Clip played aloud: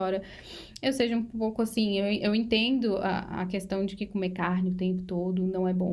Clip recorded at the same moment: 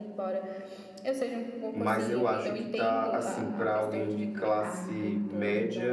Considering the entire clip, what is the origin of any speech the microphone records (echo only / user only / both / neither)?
both